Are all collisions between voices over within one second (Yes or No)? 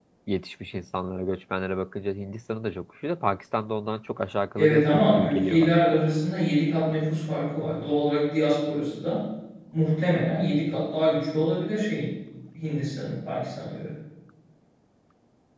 No